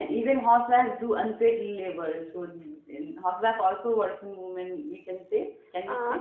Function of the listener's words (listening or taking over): taking over